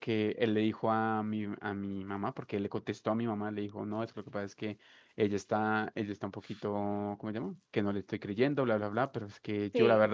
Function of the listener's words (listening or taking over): listening